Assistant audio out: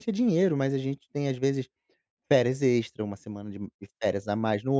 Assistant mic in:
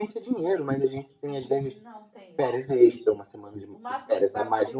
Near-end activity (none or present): present